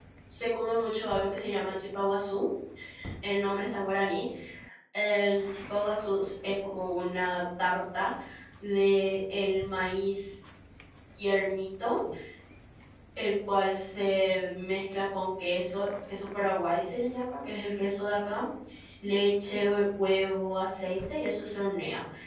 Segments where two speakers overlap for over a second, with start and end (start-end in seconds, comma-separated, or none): none